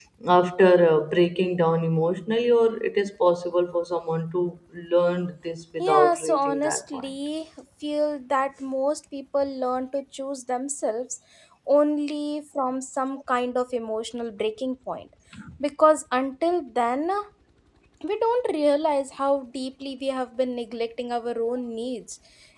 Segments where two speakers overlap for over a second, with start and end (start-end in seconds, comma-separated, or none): 5.8-7.1